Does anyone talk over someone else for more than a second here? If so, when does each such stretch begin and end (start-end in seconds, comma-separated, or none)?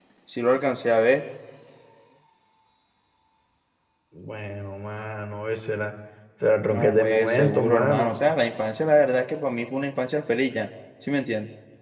6.7-8.2